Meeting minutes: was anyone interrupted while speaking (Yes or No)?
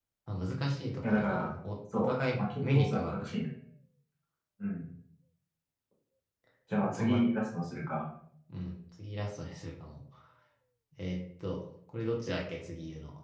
Yes